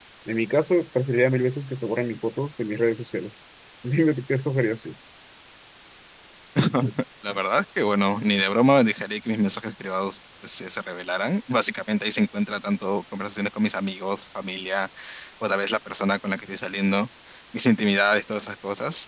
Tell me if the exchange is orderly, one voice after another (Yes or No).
Yes